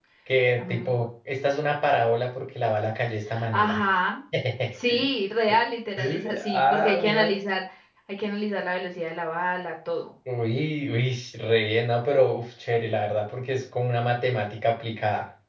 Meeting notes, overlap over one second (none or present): present